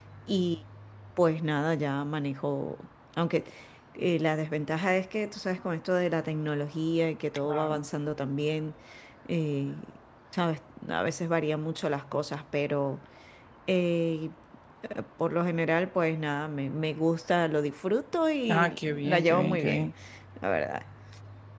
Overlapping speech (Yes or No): Yes